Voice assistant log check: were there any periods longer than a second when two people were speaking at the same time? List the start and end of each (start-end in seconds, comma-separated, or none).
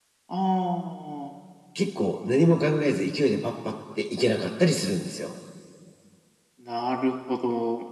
none